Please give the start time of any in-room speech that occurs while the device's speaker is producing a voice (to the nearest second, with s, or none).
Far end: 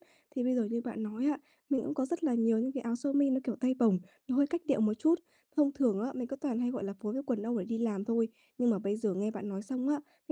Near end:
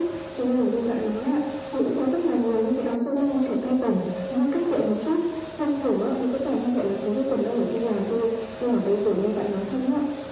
none